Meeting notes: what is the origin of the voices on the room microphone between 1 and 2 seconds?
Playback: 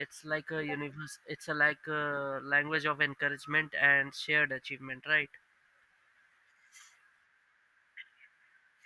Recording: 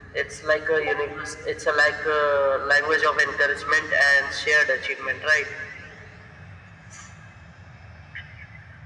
echo only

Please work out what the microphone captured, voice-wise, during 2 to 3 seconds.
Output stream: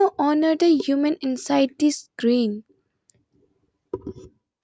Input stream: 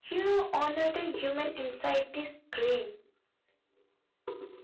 echo only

